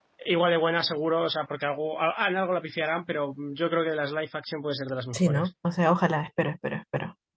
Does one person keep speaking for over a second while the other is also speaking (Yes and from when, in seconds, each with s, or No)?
No